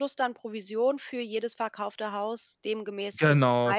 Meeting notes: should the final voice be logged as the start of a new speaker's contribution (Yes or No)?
Yes